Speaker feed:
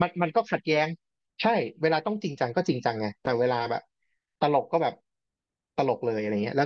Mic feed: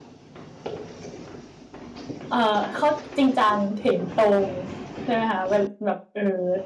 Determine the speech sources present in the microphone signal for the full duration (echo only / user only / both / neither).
user only